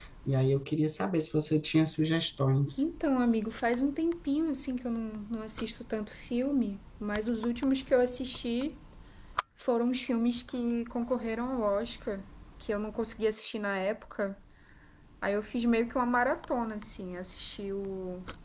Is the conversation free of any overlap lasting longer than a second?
Yes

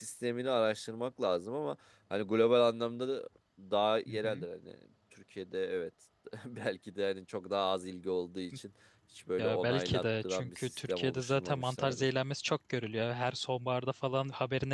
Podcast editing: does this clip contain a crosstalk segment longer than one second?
Yes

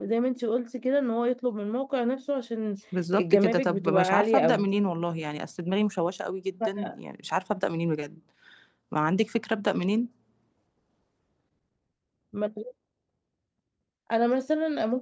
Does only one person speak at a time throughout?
No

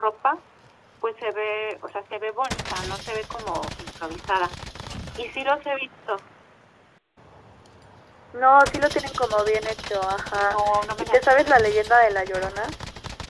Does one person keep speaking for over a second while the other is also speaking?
No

